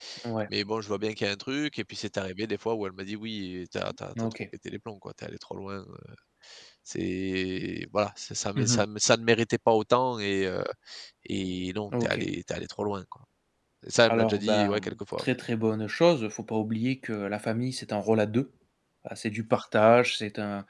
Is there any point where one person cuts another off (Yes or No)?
Yes